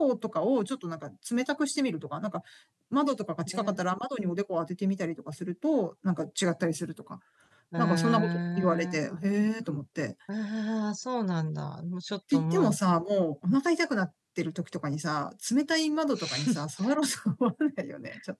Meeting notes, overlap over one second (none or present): present